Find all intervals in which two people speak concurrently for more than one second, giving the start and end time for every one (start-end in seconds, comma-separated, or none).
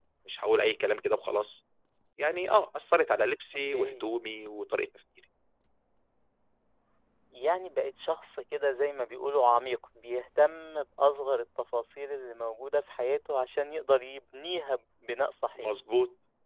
none